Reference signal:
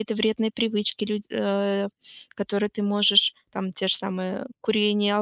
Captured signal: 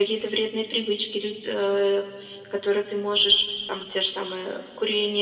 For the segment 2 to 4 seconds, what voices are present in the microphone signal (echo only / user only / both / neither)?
echo only